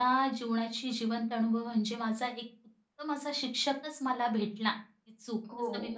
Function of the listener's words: taking over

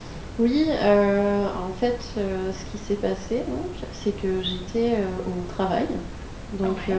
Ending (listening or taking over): listening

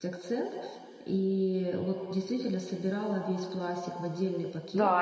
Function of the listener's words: taking over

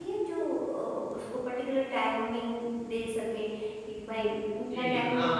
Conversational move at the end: taking over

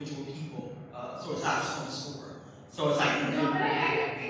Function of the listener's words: taking over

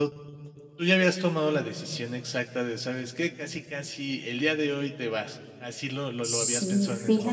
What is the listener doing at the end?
taking over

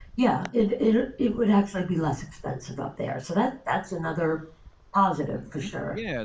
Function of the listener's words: taking over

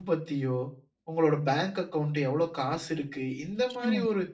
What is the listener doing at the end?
listening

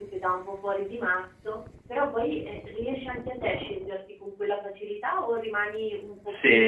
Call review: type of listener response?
taking over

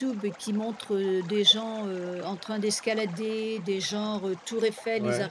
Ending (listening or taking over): listening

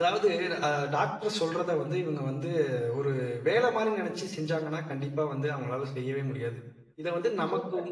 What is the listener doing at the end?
listening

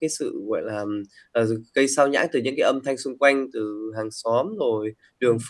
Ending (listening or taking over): listening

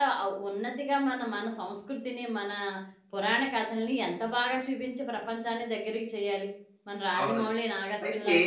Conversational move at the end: taking over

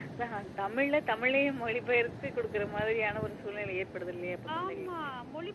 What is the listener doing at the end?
taking over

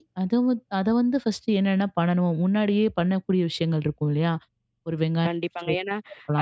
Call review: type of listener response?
taking over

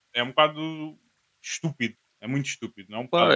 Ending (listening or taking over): taking over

